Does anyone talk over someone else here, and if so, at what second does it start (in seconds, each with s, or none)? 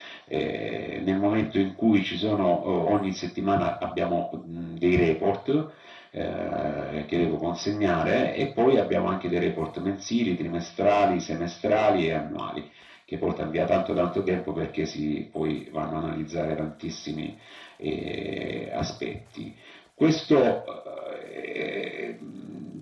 none